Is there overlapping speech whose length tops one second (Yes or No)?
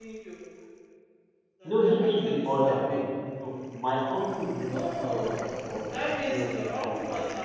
Yes